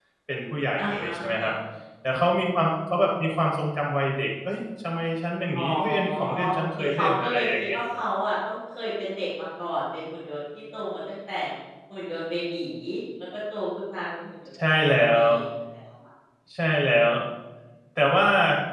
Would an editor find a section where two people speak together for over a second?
Yes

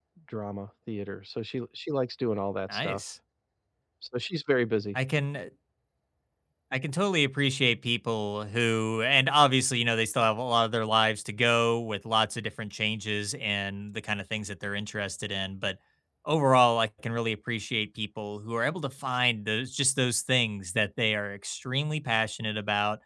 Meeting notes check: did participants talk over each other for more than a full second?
No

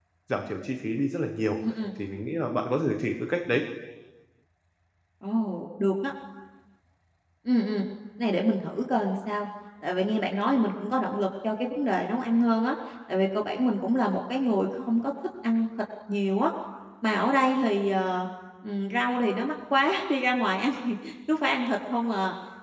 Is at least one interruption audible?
No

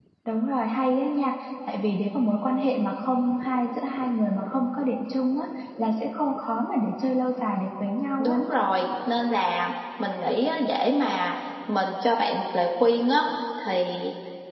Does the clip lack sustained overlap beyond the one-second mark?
Yes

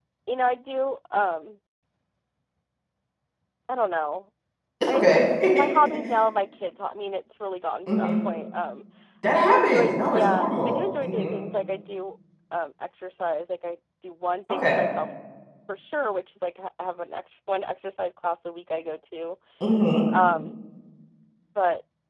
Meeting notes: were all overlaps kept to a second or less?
No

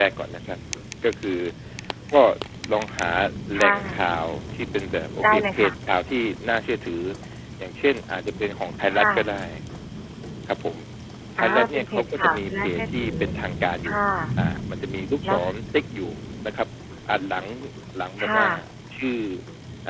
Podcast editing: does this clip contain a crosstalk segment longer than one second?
Yes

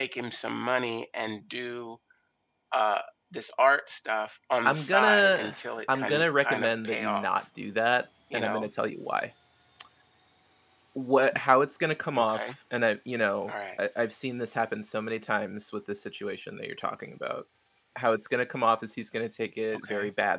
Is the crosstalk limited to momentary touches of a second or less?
No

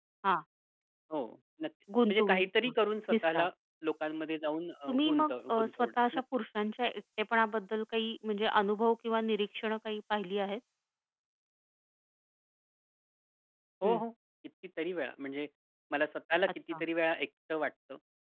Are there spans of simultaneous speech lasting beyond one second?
Yes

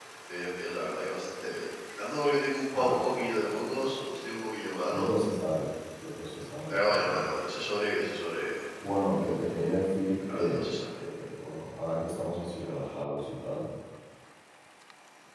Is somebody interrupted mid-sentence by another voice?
Yes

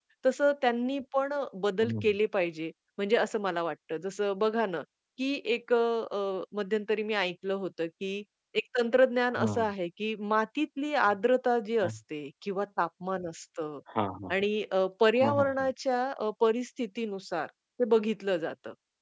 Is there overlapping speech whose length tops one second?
No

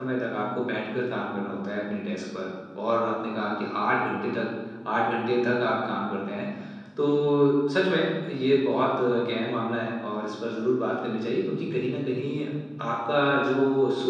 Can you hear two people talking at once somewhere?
No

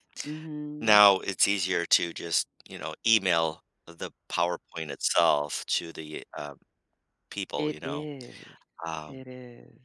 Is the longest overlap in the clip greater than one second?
No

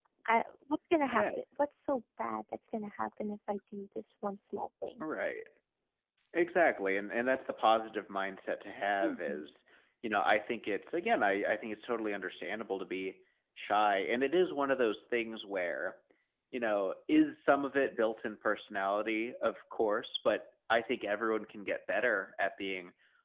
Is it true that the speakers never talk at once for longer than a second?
Yes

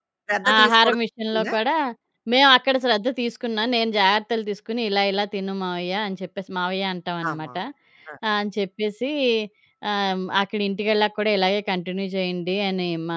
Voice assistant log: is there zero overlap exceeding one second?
Yes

